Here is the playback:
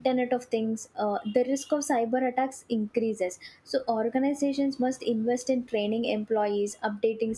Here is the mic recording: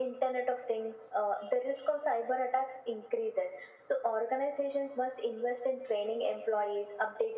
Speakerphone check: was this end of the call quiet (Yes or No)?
Yes